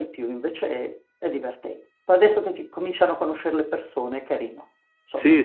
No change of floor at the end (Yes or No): No